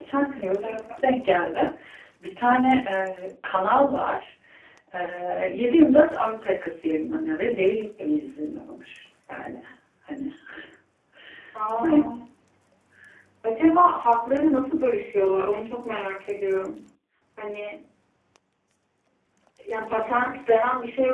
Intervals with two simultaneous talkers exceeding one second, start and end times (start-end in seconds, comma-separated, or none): none